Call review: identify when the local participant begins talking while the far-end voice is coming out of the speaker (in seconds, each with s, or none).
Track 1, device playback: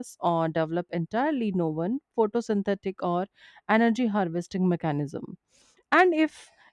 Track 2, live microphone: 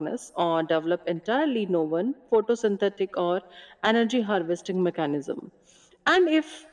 none